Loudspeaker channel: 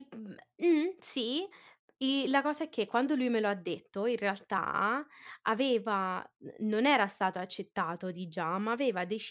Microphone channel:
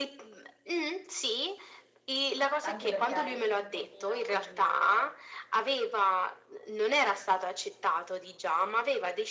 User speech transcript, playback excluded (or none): Anche perché hai un pochino il